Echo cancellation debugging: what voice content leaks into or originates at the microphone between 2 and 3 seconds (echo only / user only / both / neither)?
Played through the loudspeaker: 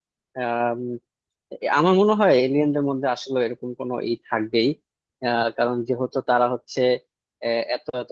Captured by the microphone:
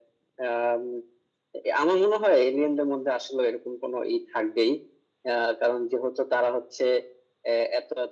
echo only